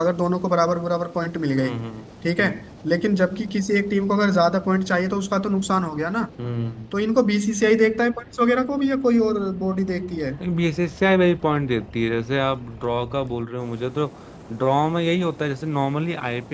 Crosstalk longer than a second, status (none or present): none